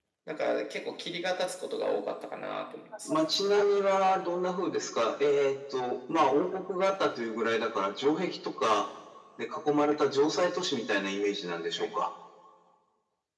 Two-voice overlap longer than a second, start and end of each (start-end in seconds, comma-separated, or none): none